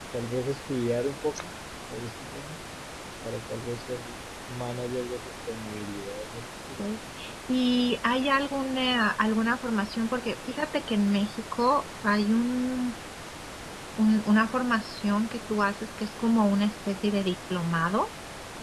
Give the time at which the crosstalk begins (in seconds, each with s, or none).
none